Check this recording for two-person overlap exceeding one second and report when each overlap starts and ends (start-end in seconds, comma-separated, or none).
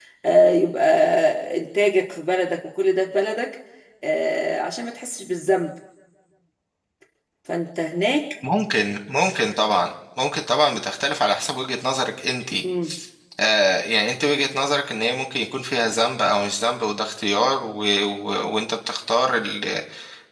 none